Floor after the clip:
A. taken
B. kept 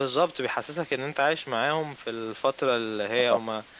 B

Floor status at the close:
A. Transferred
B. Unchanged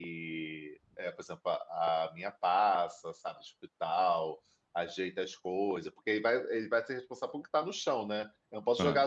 B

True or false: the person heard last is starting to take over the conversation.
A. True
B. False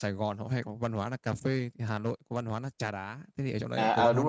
A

